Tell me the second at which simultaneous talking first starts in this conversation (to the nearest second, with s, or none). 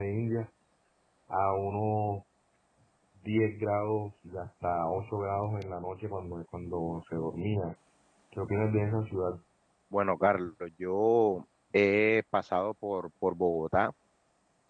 none